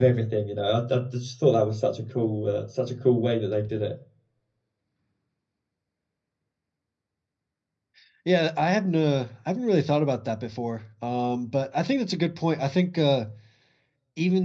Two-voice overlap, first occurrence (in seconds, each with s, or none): none